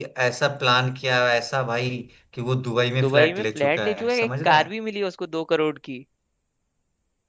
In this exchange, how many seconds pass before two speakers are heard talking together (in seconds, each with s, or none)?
3.0 s